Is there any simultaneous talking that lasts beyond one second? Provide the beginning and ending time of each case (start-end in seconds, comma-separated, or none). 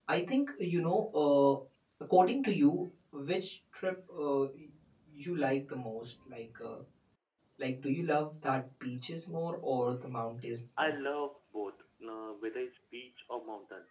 none